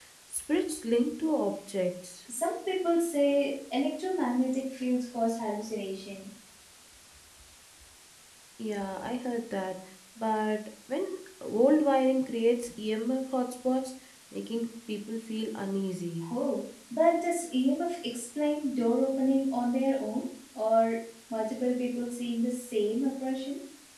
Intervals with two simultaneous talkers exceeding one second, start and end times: none

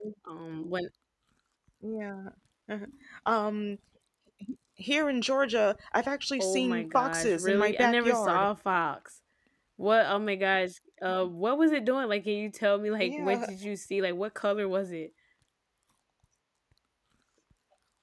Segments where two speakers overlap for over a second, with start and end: 6.4-8.5

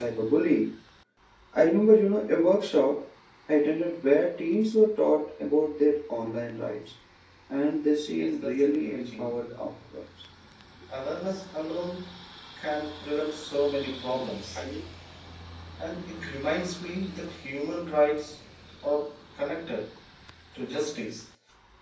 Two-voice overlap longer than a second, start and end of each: 8.1-9.4

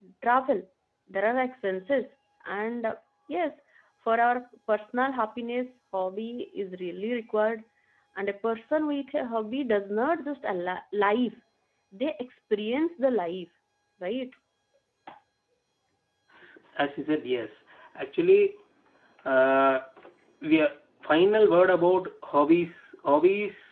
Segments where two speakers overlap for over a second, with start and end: none

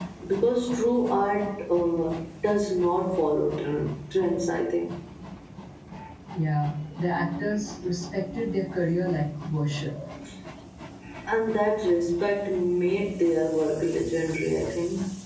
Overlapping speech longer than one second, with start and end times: none

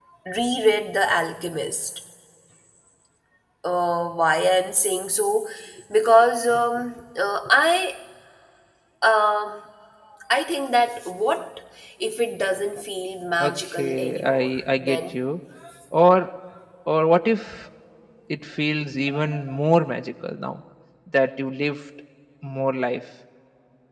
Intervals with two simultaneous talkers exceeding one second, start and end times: 13.4-15.1

